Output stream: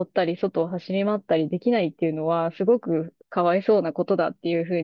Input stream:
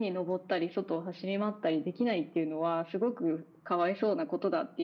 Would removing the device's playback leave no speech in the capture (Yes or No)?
Yes